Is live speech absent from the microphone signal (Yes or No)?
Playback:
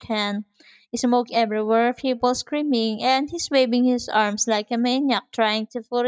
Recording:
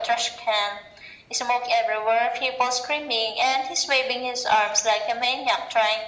Yes